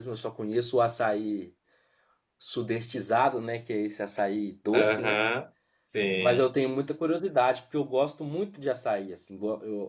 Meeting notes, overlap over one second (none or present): none